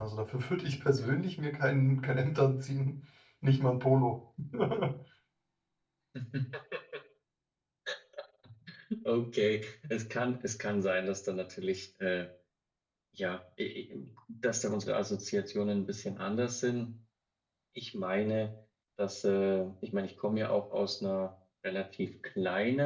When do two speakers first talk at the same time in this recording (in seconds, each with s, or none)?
none